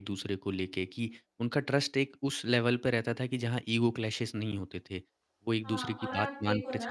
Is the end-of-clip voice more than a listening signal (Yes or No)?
Yes